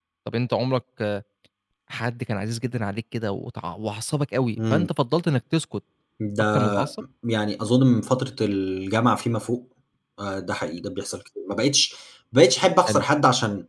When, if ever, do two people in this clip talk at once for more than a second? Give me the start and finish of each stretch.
none

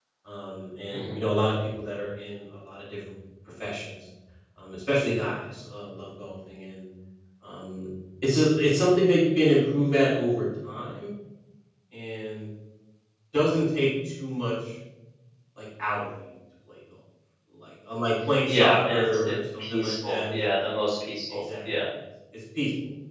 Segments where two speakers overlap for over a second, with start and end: 18.5-20.4

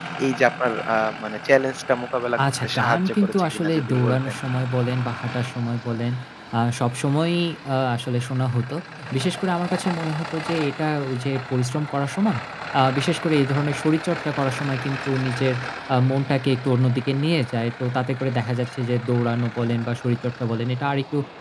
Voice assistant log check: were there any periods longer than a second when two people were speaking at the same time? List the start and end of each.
2.4-4.4

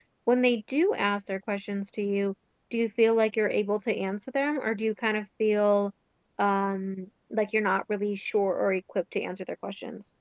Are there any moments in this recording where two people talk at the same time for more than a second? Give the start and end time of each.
none

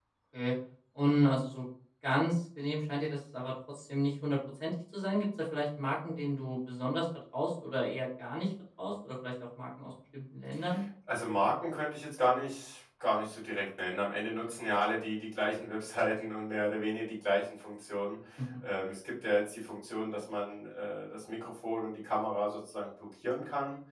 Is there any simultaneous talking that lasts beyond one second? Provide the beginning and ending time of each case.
none

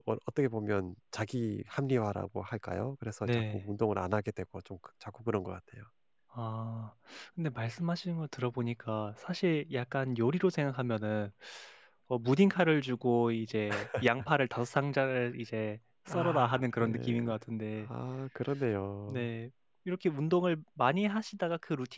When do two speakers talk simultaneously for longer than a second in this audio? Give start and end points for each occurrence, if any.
16.1-17.3

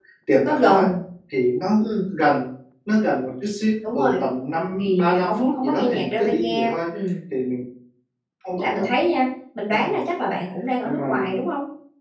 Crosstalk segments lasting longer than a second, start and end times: 4.8-6.7

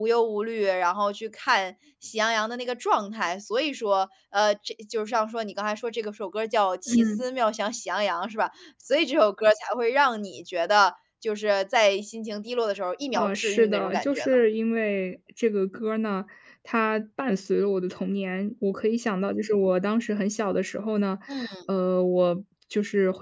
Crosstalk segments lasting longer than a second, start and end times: 13.1-14.4

